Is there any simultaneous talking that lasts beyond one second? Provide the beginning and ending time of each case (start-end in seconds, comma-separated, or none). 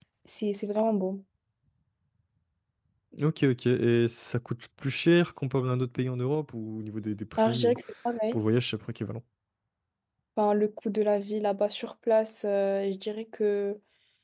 none